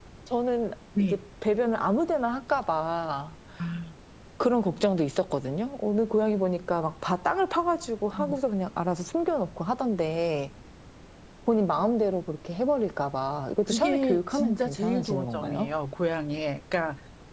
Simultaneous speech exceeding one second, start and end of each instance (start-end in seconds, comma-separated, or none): 13.7-15.7